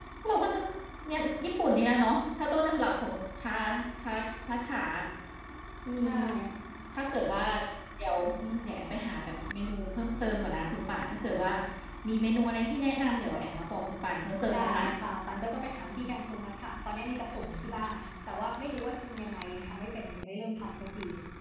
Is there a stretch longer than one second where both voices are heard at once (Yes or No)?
No